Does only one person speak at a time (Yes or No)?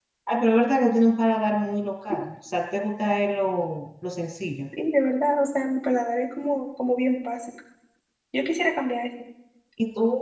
Yes